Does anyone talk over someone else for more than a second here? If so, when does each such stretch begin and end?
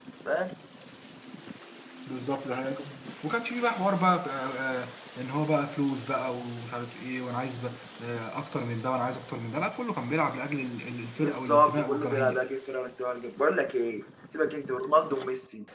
11.2-12.4

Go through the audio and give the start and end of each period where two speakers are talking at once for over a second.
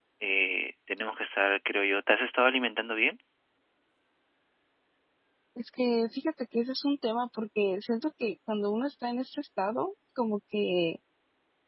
none

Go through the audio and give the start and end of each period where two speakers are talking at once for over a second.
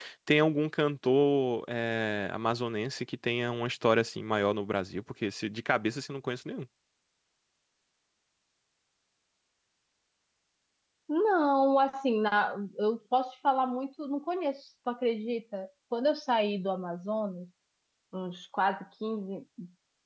none

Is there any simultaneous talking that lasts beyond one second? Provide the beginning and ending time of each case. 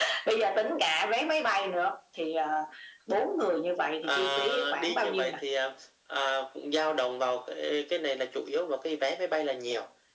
4.0-5.4

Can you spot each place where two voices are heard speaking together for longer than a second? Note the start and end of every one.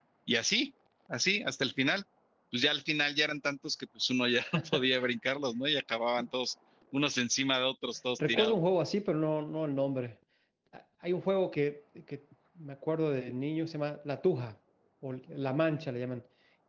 none

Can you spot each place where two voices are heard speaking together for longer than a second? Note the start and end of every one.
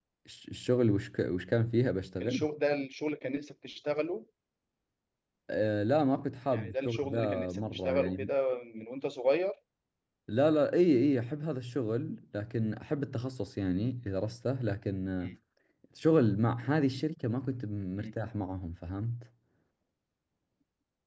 6.5-8.3

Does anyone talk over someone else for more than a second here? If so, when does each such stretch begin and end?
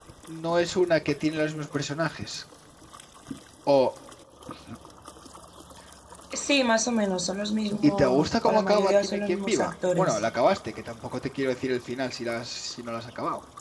7.8-10.2

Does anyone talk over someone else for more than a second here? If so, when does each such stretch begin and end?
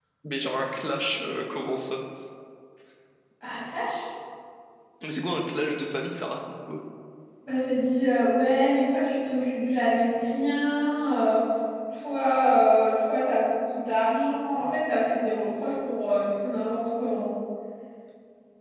none

